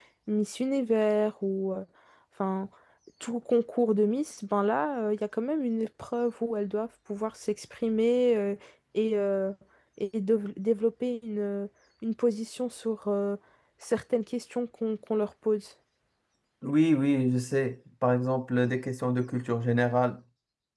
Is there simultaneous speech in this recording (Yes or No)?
No